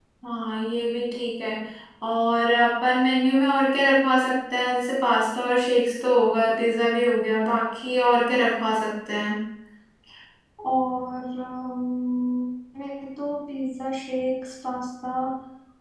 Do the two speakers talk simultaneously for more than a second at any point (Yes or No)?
No